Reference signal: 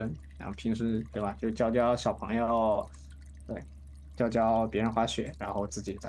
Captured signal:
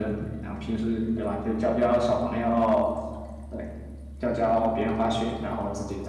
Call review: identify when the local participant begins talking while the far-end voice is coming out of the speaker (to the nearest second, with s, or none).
none